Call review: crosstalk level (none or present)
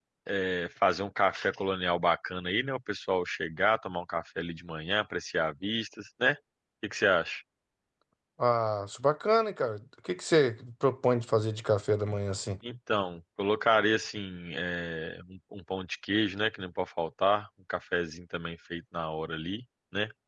none